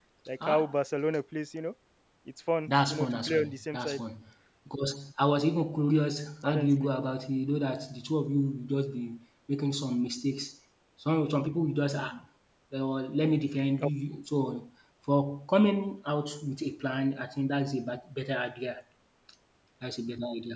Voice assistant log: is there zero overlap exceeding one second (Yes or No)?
No